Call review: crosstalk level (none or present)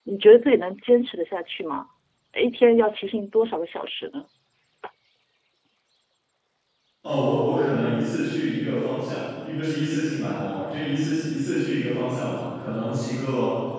none